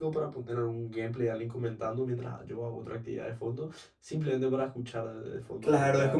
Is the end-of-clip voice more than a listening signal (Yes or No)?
Yes